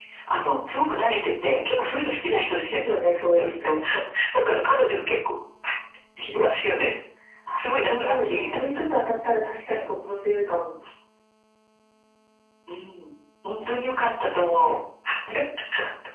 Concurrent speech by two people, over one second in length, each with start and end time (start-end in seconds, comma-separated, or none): 7.6-8.8